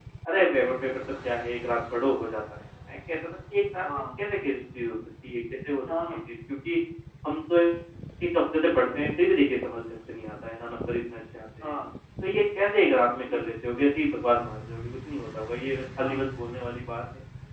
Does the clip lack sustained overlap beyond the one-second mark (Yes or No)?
Yes